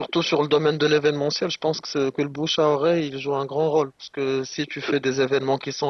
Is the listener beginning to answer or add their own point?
No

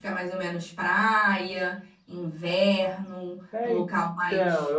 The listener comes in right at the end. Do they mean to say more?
Yes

